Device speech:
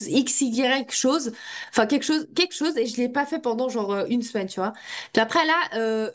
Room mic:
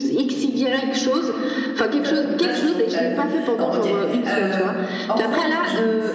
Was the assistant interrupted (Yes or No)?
Yes